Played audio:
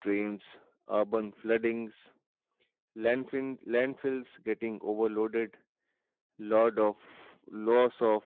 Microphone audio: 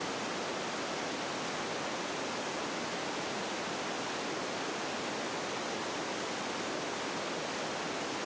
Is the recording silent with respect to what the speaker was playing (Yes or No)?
Yes